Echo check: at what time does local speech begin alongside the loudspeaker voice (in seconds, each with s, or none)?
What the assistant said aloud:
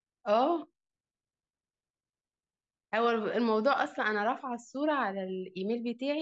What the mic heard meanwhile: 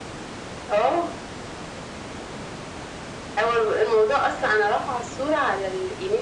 none